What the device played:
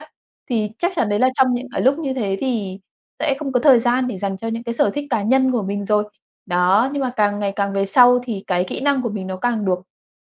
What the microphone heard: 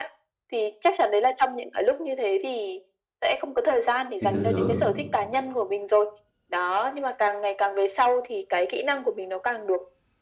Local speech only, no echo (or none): thì tự thưởng.